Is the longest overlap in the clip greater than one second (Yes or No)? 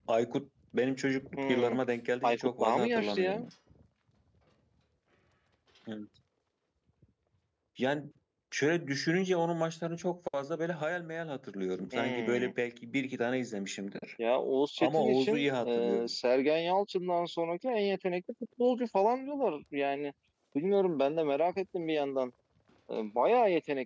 Yes